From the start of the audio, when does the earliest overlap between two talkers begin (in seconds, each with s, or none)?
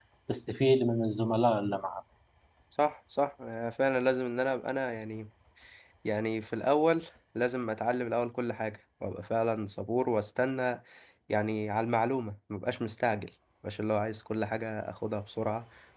none